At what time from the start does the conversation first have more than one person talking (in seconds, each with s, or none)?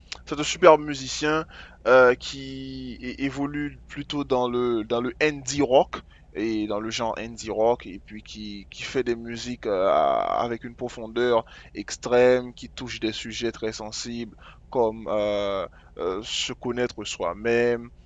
none